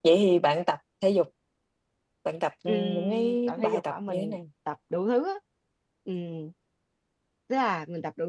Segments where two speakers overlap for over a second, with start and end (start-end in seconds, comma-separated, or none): 2.7-4.4